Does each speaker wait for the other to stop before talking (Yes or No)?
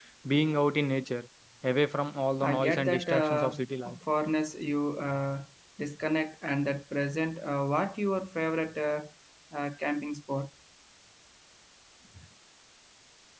No